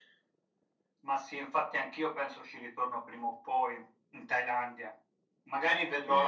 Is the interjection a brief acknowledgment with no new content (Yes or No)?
No